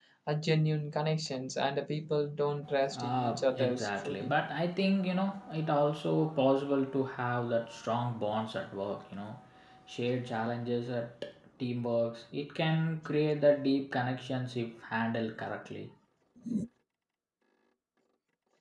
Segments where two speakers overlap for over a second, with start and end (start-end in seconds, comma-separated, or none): 2.9-4.3